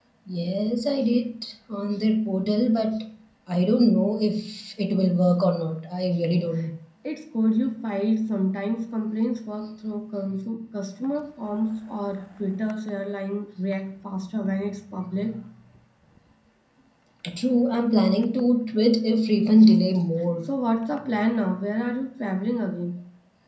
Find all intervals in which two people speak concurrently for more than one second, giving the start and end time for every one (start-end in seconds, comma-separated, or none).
none